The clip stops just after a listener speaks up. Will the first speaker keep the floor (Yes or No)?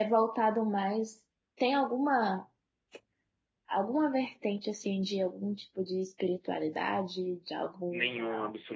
No